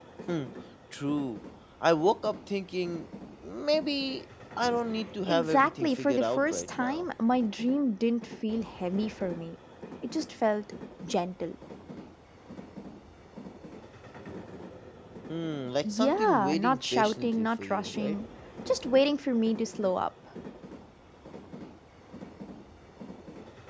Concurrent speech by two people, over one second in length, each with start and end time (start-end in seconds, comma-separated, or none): 5.3-7.0, 15.8-18.2